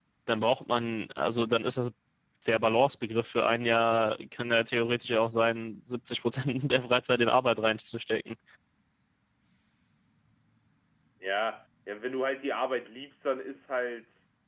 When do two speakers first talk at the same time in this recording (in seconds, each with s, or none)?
none